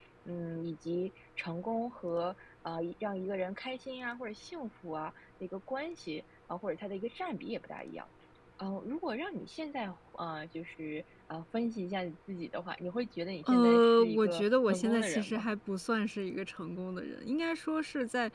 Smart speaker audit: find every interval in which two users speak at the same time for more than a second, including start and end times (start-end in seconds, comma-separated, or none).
13.4-15.4